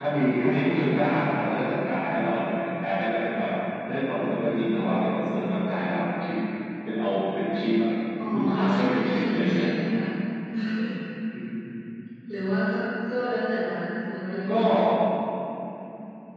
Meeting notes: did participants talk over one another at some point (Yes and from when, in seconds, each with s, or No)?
Yes, from 8.3 s